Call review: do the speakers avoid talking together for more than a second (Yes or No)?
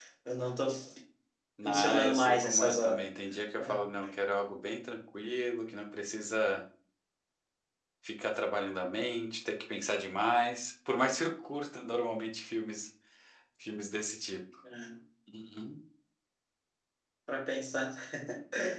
No